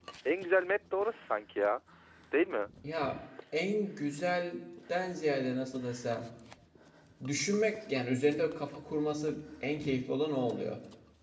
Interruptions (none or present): none